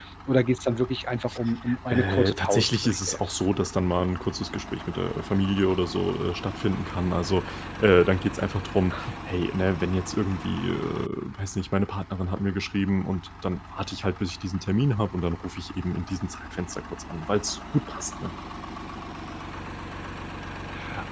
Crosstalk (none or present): present